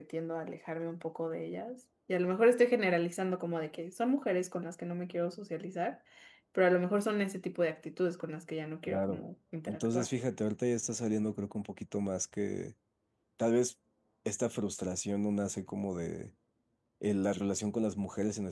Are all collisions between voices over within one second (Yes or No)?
Yes